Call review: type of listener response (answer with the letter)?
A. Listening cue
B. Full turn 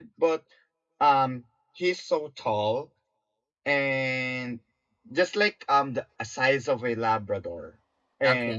A